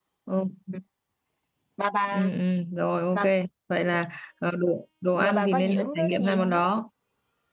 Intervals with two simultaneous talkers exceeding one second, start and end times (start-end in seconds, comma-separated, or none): 5.1-6.6